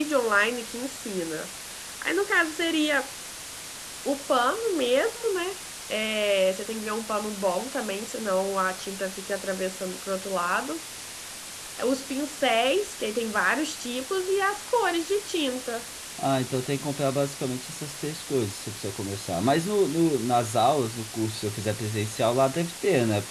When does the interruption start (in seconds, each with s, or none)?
none